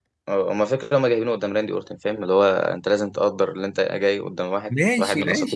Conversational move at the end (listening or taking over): taking over